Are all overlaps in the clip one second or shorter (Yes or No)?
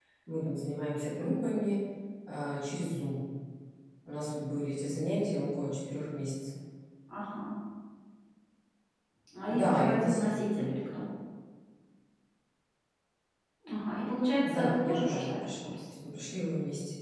No